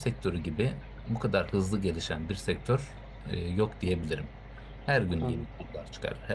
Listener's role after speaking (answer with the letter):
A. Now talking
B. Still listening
B